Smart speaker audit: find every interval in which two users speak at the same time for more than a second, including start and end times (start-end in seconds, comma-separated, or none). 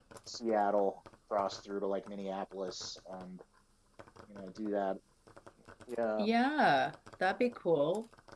none